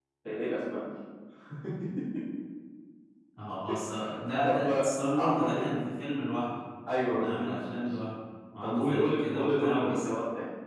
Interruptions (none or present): present